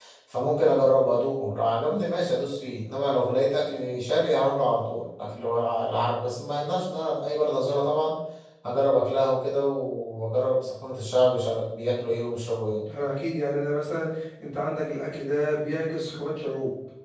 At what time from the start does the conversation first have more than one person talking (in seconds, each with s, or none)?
none